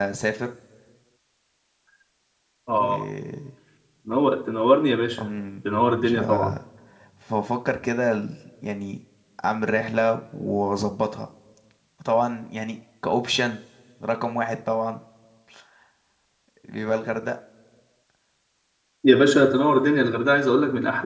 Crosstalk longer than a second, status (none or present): none